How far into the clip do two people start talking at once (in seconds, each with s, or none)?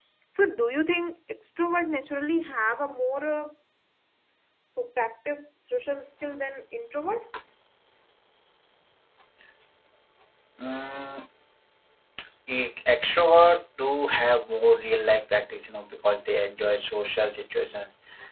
none